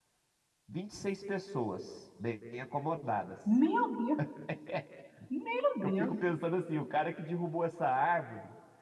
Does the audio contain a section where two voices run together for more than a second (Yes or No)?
No